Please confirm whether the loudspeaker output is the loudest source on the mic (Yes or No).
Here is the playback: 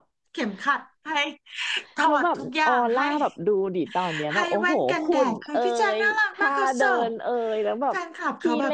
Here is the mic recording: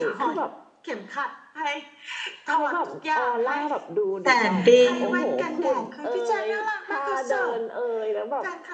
No